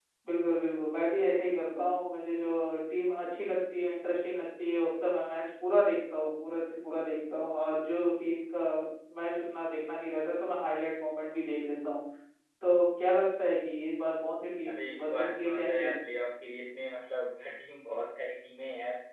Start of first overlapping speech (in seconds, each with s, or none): 14.6 s